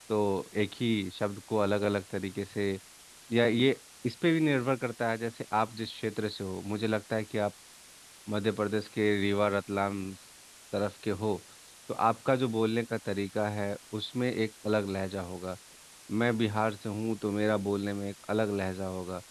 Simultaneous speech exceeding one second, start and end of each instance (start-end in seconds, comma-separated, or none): none